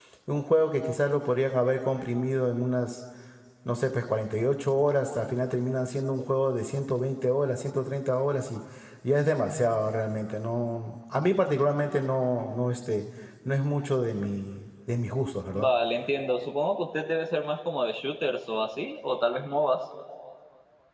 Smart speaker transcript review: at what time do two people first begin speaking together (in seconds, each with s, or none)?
none